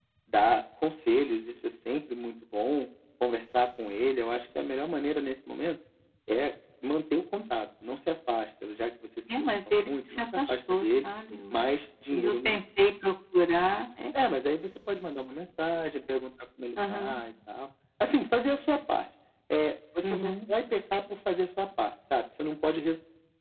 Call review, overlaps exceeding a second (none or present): present